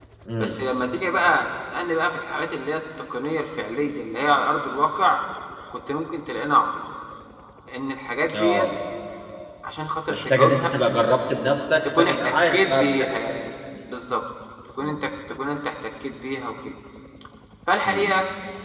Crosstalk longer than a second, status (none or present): present